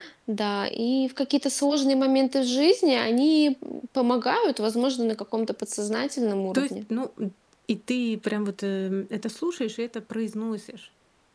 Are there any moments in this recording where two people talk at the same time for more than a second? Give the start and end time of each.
none

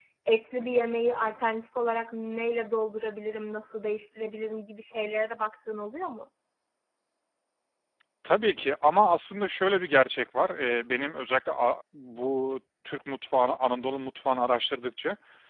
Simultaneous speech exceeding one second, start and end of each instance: none

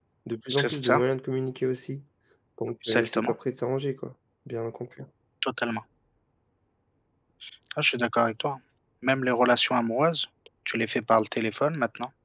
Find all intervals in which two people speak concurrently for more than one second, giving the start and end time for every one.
none

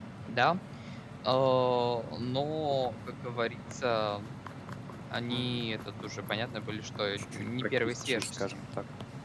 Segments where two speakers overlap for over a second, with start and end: 7.3-8.6

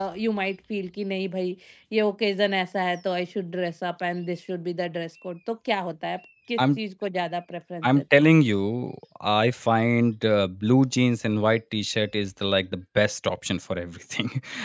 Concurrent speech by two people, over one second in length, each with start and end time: none

